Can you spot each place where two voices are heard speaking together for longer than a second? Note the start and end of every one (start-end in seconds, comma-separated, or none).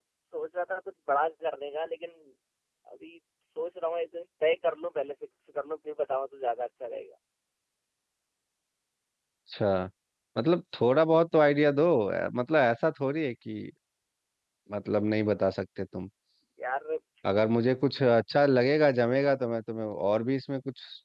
none